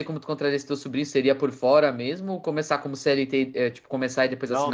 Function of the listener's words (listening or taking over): taking over